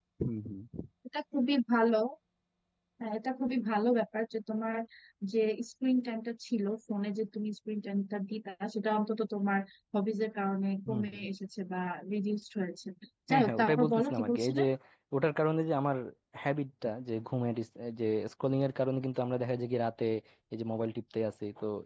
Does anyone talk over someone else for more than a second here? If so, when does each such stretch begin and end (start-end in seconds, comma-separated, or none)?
13.3-14.6